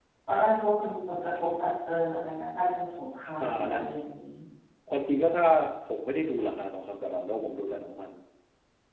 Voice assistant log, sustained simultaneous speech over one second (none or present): none